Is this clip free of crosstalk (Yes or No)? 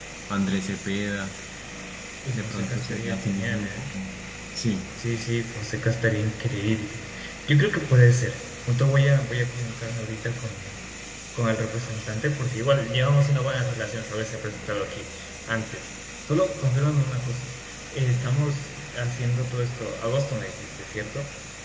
No